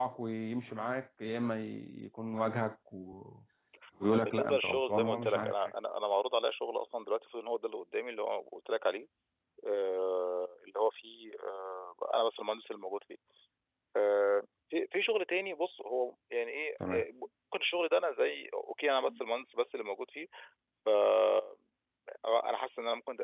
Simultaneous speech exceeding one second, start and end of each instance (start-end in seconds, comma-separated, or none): 4.1-5.5